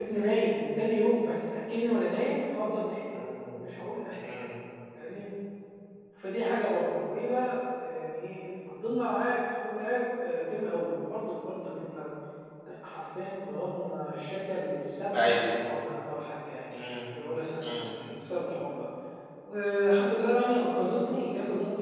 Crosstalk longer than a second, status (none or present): none